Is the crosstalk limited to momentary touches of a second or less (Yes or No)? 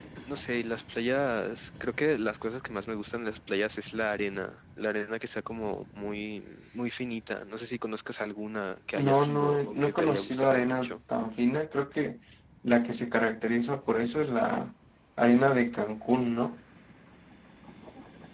No